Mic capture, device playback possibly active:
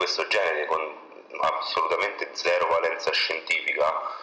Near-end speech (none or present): none